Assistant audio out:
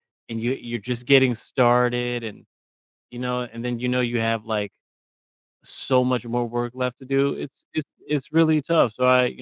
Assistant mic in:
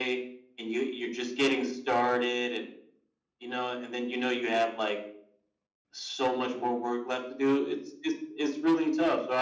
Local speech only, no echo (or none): none